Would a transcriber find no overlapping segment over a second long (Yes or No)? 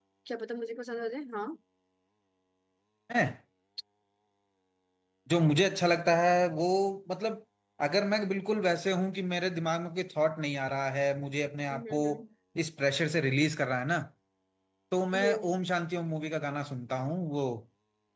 Yes